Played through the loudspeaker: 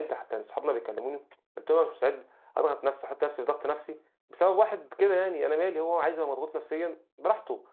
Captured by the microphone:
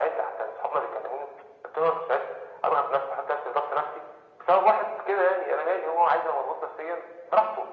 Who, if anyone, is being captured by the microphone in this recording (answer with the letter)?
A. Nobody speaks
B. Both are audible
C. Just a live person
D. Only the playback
D